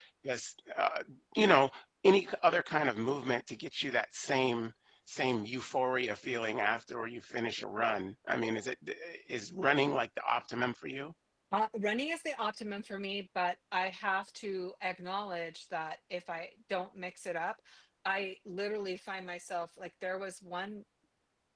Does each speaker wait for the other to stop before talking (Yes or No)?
Yes